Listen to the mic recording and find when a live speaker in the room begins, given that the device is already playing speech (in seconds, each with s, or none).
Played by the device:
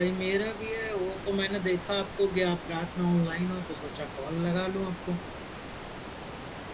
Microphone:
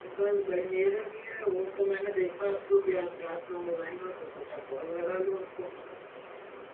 none